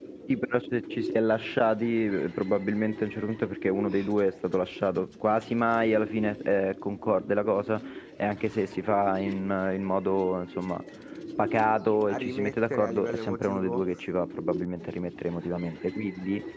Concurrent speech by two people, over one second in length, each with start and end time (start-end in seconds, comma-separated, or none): 12.1-13.8